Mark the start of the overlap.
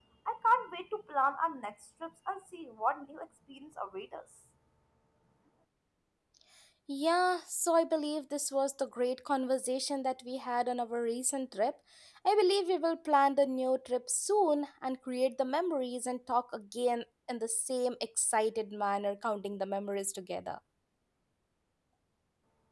none

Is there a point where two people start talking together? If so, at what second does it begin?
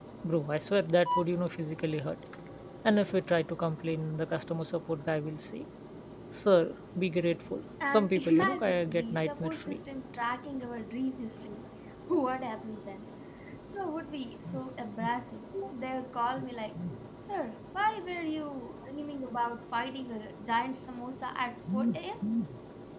8 s

